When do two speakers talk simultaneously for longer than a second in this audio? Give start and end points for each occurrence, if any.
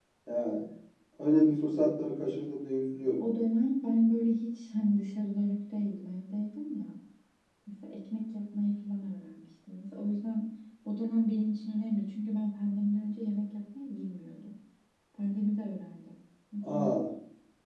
none

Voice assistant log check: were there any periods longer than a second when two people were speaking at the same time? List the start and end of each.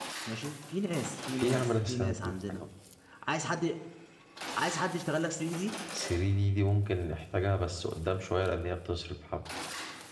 1.4-2.6

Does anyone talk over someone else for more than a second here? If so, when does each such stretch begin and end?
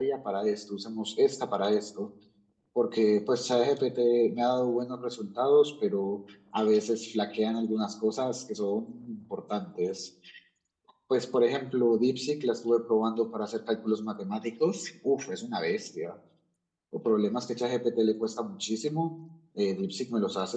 none

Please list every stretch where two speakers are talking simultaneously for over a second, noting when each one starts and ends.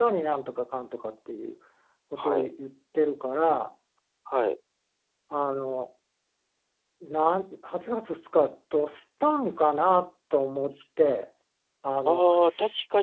none

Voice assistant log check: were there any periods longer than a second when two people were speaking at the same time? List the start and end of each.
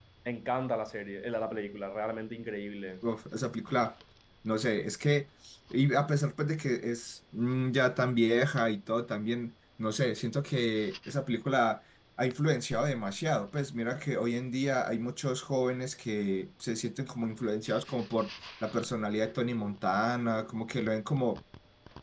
none

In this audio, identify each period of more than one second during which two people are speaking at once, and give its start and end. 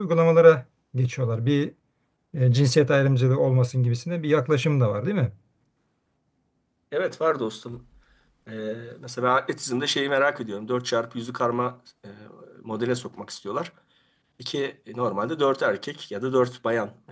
none

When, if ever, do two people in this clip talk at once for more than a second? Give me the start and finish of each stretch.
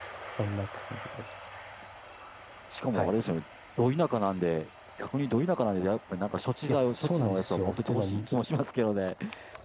6.7-8.2

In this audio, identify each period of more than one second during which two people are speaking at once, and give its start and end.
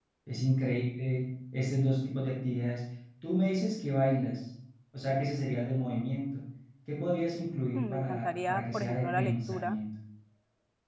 7.7-9.8

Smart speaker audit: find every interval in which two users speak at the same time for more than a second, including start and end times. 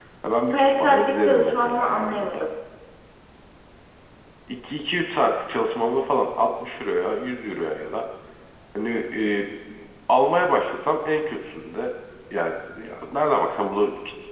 0.5-2.3

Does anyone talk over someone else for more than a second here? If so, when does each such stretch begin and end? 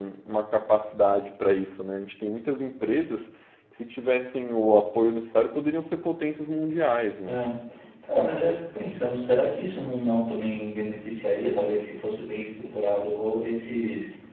none

